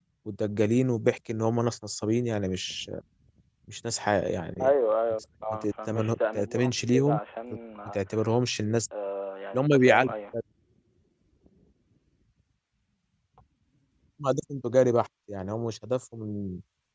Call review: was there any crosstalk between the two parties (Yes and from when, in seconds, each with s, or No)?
Yes, from 5.5 s